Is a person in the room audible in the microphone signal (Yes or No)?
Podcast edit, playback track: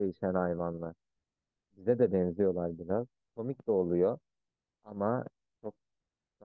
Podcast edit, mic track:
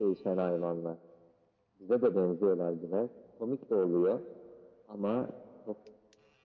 No